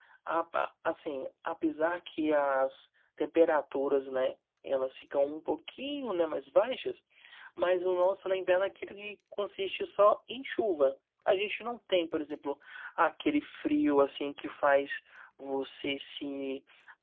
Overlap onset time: none

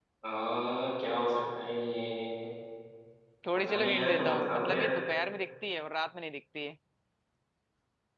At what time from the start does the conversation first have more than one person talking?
3.5 s

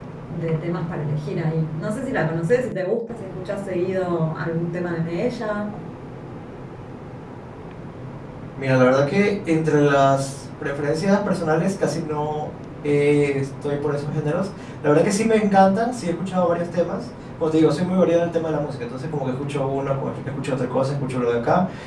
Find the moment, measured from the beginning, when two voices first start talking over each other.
none

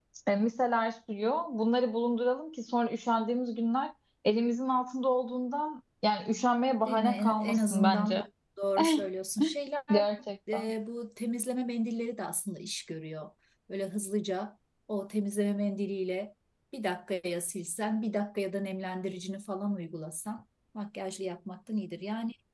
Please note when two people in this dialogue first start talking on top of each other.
6.9 s

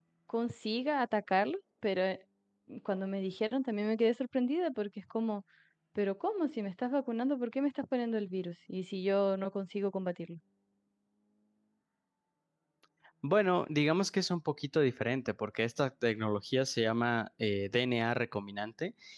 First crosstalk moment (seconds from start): none

